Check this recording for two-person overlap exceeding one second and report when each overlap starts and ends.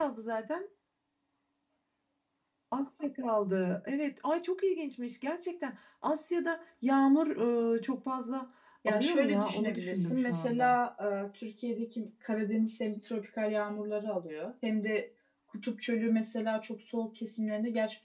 8.9-10.7

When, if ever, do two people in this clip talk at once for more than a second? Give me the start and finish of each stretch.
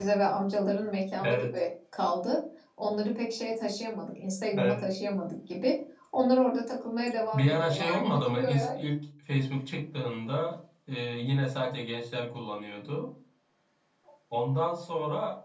7.3-8.8

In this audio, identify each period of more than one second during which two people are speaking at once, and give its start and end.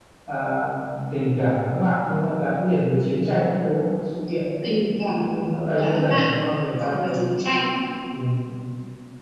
none

